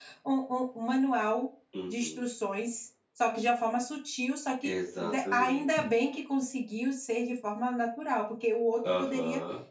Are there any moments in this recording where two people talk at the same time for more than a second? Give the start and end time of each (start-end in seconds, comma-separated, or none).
4.6-5.9